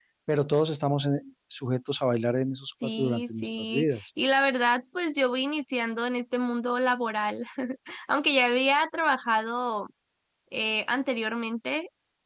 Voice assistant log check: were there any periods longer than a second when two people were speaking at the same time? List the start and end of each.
2.8-4.1

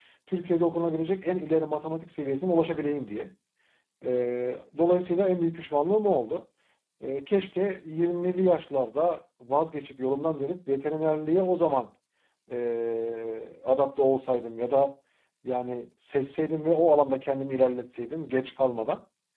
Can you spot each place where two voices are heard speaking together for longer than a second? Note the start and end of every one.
none

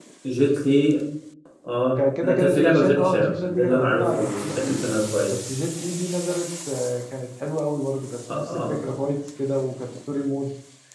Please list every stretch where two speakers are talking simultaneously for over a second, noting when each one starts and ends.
2.2-4.8

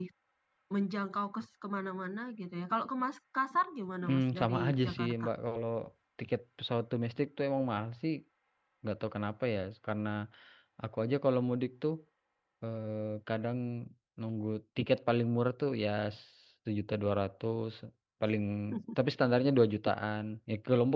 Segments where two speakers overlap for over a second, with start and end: 4.0-5.2

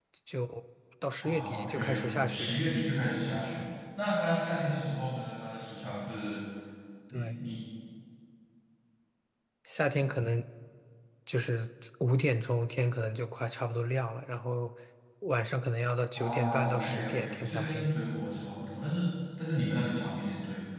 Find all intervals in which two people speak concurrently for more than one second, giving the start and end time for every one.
1.2-2.6, 16.1-17.9

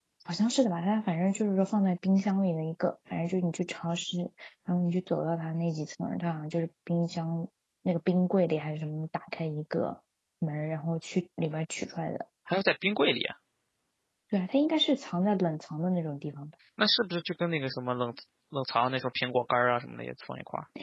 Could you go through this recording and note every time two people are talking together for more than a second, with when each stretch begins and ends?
none

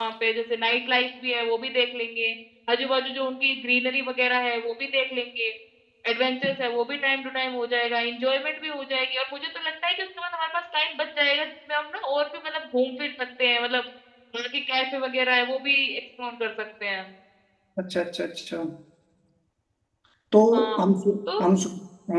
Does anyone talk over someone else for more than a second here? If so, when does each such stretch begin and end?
none

